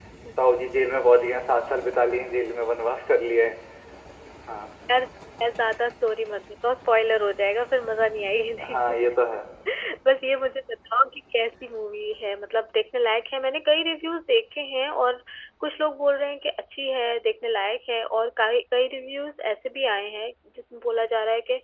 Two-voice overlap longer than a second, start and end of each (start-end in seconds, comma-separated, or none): none